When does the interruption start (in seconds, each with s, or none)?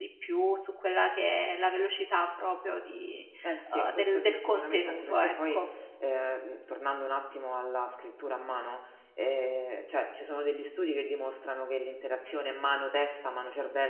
3.7 s